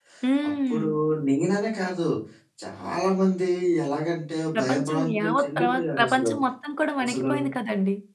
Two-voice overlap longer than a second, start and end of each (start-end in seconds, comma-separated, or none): 4.6-6.3